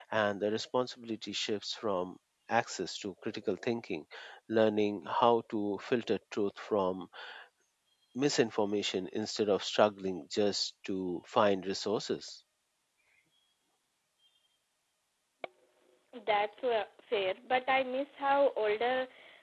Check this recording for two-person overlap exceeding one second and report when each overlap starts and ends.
none

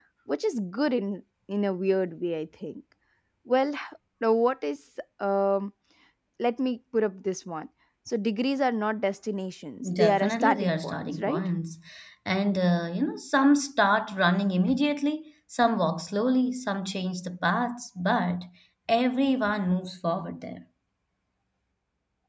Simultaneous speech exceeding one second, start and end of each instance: 9.9-11.4

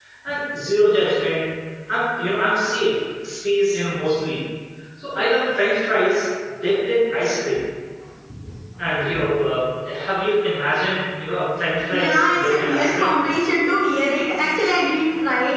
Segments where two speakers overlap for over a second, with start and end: 11.9-13.2

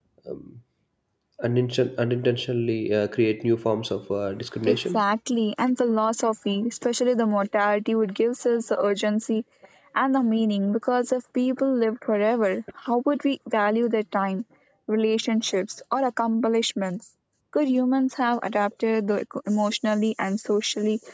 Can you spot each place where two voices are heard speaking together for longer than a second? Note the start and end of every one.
none

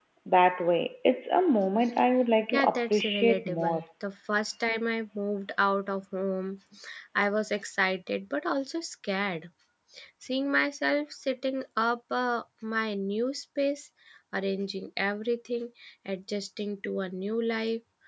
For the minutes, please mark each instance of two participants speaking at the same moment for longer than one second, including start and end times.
2.5-3.8

